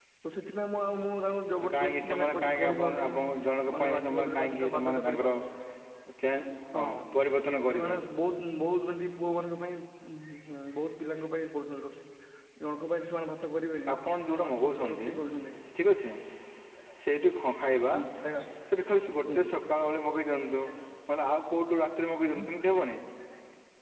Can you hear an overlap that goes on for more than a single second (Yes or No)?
Yes